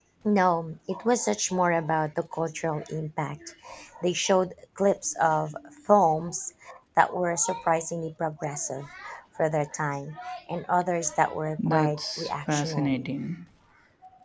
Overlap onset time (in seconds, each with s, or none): 11.6 s